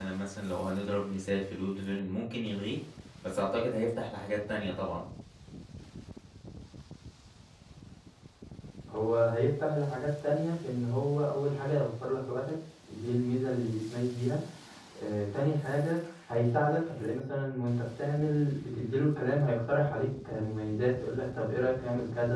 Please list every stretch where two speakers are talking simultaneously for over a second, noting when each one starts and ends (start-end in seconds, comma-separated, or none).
none